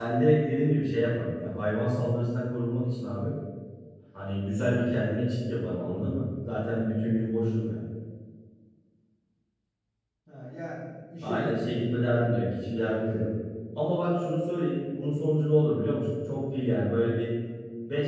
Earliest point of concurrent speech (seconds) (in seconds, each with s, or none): 11.2 s